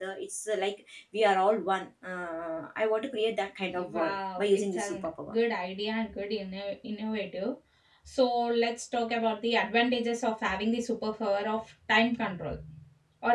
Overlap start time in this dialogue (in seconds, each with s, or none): 3.8 s